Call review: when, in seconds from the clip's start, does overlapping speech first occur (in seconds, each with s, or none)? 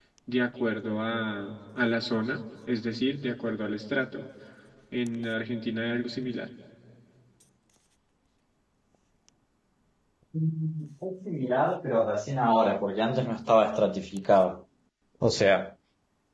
none